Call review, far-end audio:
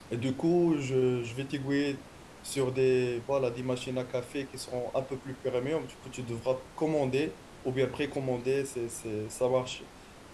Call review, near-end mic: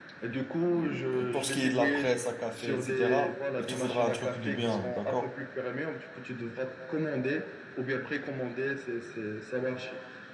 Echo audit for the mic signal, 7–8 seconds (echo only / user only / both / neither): echo only